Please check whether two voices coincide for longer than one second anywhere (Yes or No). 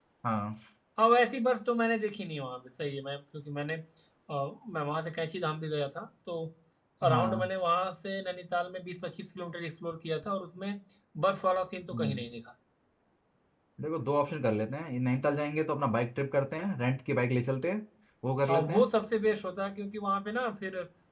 No